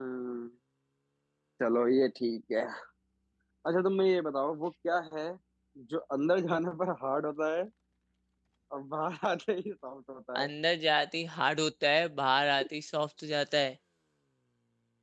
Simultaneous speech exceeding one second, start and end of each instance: none

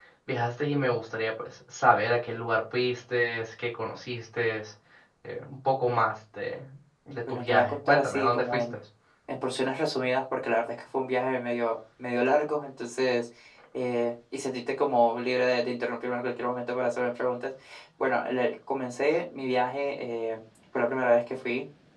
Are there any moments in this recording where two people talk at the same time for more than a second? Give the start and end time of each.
7.3-8.6

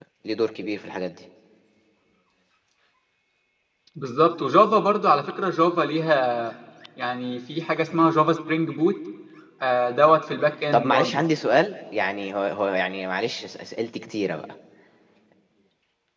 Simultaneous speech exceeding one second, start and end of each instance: none

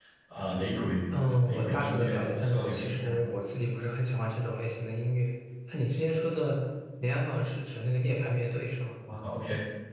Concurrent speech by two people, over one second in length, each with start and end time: 1.4-3.2

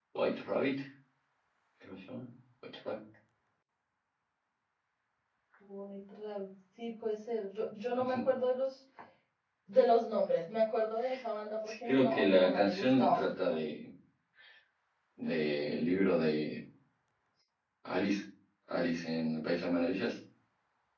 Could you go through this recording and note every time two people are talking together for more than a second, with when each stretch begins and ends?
11.9-13.2

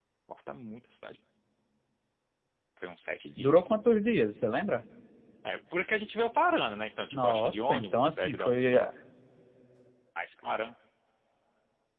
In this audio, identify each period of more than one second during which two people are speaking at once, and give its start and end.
7.1-8.9

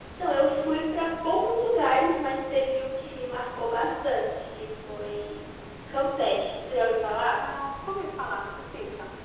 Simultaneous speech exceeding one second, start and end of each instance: none

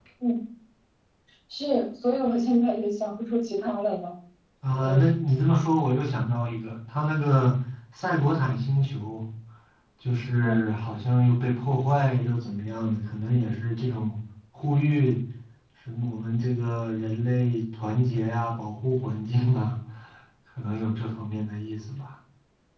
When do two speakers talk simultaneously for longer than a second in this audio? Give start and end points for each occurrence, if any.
none

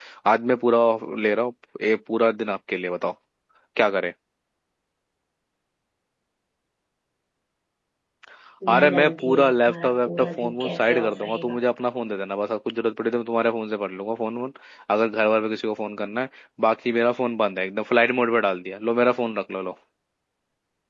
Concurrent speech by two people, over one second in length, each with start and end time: 8.7-11.6

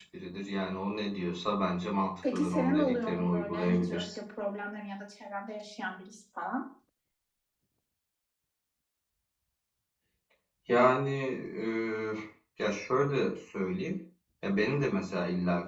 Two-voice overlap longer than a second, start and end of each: 2.3-4.1

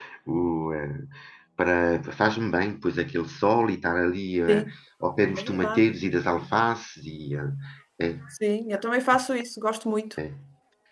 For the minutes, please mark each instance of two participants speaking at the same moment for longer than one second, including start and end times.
none

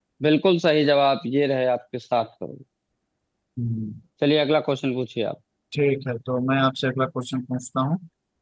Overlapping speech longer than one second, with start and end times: none

